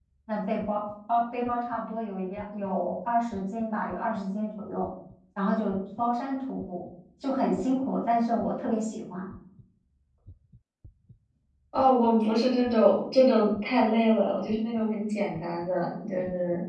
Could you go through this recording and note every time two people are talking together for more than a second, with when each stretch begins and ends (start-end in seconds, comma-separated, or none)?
none